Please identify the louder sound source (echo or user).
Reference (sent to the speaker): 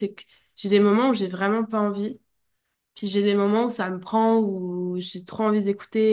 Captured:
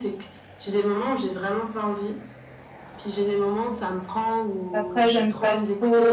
user